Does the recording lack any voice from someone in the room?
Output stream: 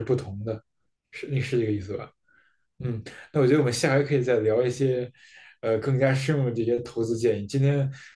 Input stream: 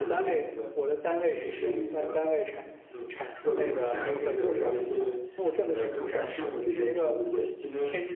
No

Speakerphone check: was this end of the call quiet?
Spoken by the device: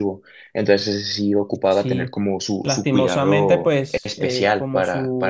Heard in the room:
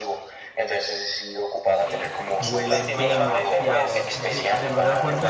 No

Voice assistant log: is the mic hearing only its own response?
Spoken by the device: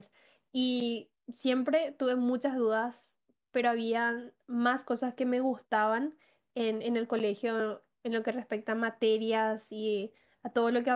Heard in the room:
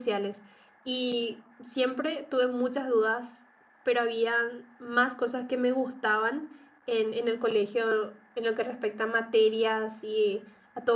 Yes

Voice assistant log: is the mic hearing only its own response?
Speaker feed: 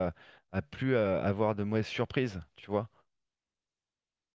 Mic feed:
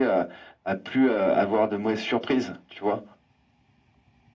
Yes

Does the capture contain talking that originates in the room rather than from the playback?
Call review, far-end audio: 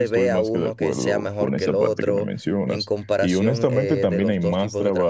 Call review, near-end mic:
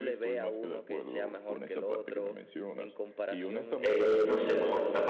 Yes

